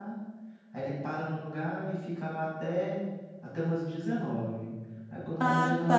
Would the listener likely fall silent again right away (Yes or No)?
Yes